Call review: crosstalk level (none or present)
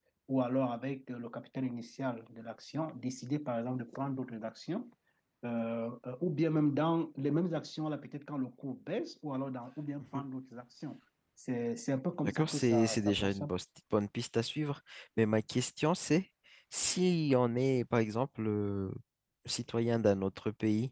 present